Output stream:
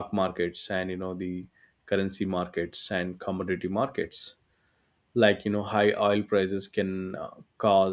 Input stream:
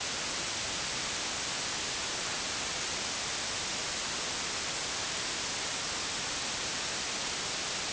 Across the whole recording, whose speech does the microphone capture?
neither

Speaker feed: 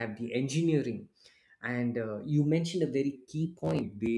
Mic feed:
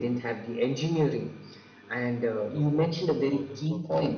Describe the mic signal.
both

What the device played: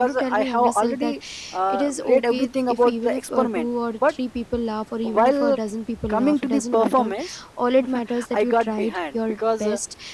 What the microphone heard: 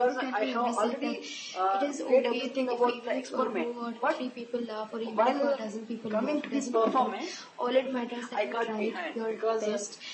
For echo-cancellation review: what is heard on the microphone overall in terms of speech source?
echo only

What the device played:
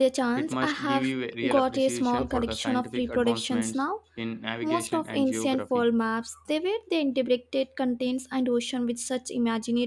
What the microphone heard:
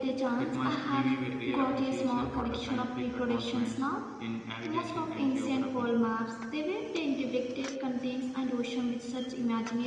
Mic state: echo only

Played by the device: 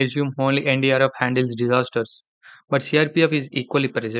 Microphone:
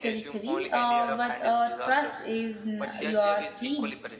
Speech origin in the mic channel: both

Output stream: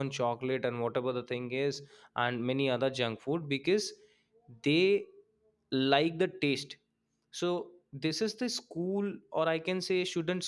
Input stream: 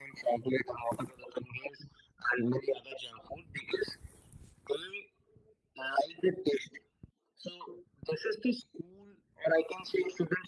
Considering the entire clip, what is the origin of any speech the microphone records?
echo only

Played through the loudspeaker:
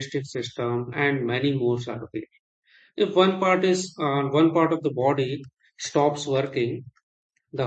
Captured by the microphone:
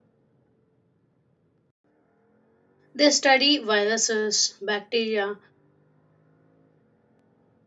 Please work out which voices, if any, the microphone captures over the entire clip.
user only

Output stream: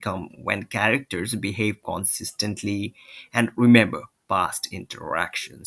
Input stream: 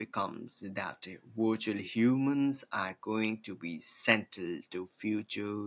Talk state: user only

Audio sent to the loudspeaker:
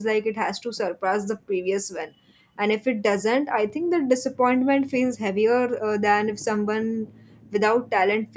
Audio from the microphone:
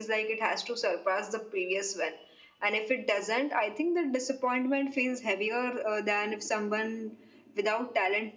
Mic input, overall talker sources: echo only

